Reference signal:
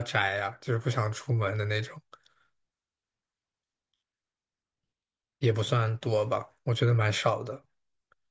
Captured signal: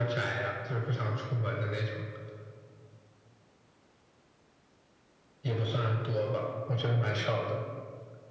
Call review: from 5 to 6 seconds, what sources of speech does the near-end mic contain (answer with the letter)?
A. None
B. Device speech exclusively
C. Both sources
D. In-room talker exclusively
B